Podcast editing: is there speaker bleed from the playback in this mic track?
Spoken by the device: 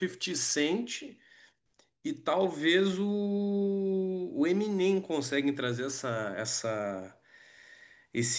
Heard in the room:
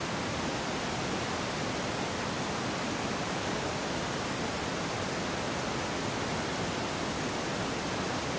No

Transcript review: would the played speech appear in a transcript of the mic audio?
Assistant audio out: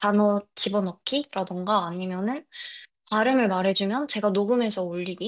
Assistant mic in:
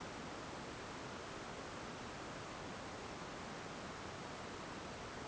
No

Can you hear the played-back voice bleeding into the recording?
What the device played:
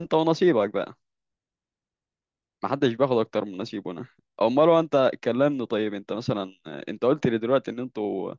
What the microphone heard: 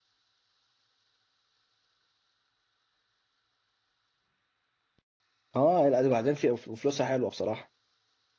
No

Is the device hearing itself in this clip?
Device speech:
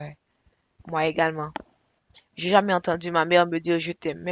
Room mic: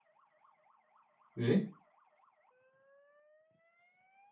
No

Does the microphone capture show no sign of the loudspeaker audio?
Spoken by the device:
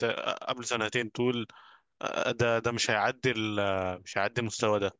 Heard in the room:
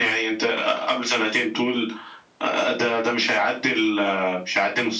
No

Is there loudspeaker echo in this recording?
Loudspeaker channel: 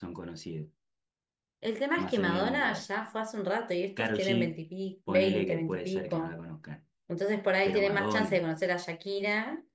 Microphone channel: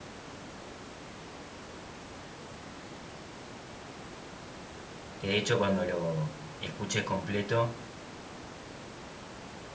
No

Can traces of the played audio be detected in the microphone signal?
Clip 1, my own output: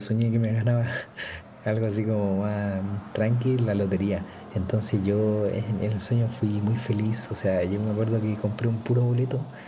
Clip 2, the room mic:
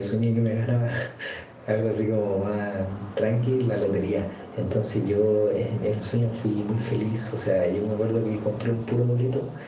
Yes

